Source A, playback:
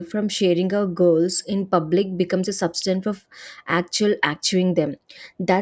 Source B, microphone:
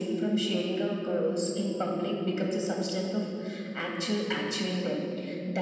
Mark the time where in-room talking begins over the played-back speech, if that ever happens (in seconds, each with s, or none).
none